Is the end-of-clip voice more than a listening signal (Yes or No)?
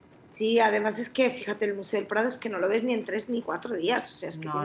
No